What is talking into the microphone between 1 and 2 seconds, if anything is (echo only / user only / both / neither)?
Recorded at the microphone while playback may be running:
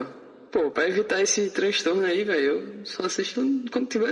echo only